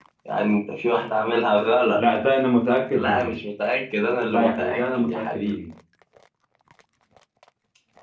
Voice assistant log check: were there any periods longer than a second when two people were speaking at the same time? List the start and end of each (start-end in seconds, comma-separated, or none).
4.3-5.6